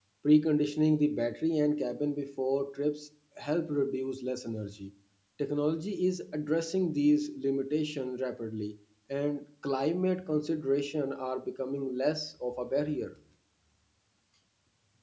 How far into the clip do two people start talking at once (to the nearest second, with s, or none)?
none